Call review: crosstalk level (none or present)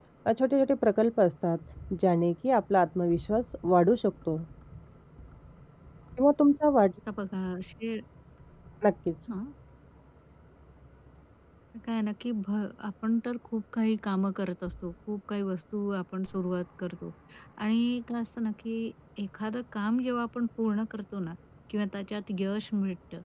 none